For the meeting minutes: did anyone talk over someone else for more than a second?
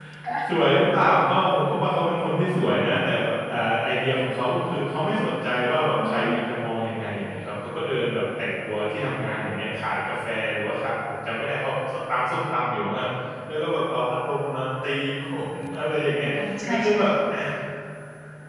No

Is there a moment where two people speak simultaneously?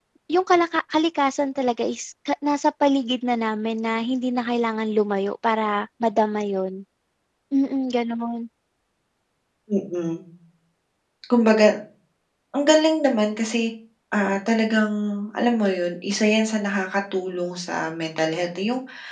No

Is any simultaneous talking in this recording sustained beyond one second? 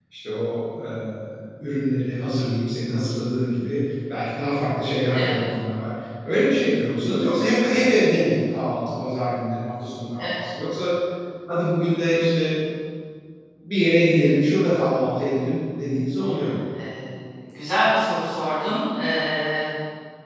No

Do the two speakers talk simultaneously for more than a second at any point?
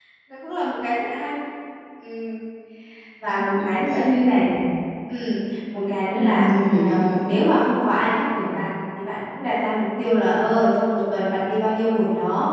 Yes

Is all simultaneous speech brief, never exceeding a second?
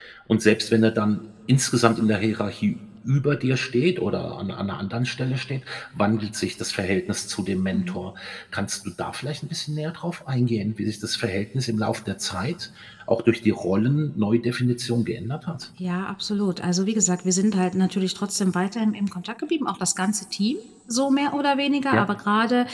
Yes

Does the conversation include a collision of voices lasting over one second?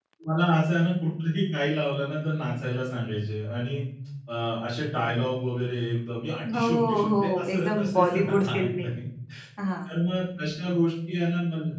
Yes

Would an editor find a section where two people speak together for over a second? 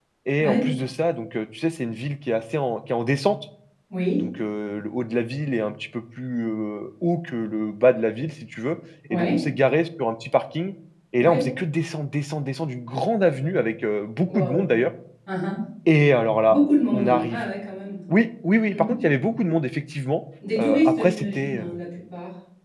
Yes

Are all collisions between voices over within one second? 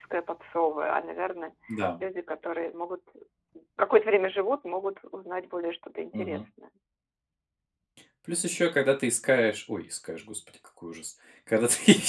Yes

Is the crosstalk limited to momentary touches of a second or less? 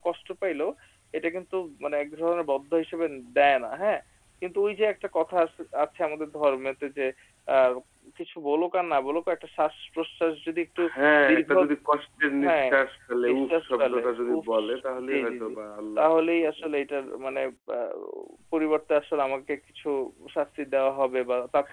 No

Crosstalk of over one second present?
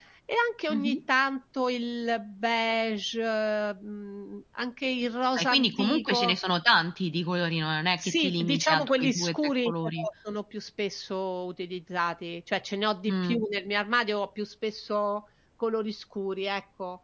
Yes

